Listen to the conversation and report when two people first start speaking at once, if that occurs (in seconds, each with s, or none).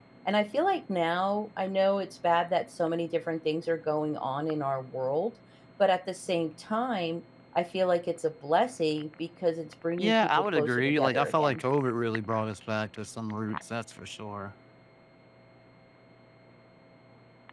10.0 s